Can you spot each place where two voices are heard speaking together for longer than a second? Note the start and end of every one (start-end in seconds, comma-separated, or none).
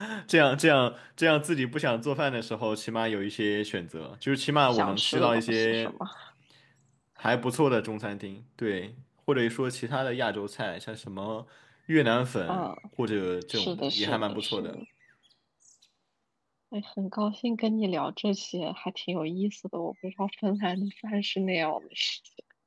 4.7-5.9, 13.5-14.8